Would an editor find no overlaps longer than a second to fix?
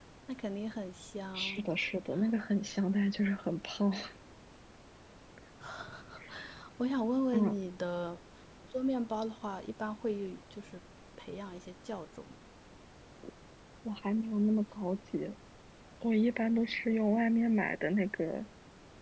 Yes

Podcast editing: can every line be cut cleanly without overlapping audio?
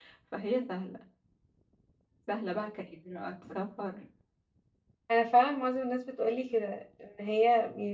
Yes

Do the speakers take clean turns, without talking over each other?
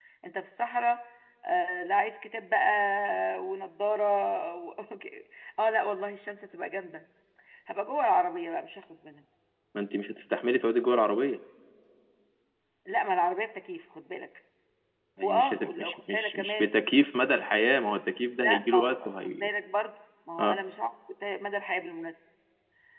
No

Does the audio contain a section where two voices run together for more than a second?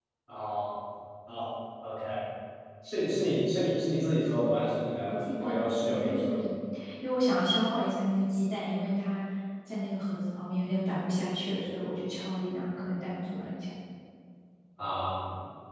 Yes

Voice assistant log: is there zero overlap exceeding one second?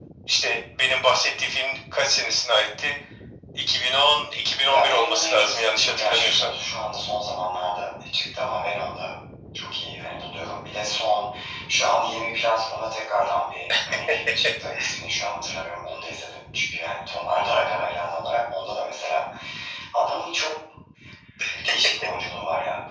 No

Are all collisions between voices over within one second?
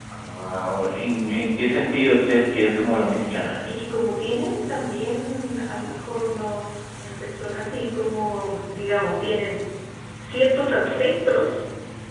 Yes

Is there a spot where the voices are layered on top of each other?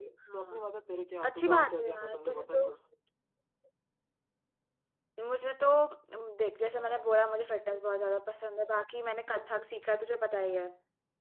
Yes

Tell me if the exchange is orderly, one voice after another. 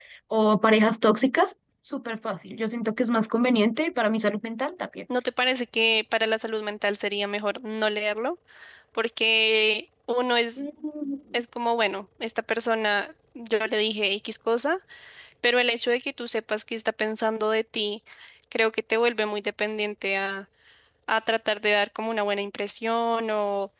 Yes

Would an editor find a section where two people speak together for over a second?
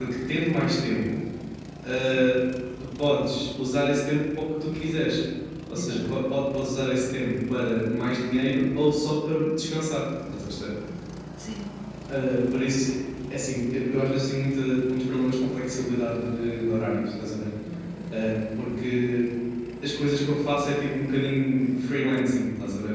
No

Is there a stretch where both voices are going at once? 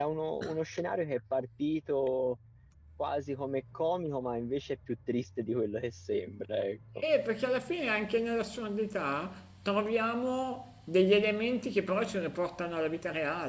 No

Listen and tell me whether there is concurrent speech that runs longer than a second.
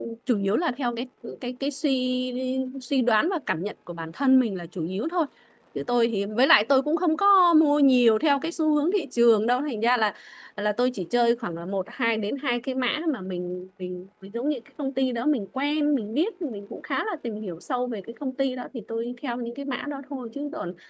No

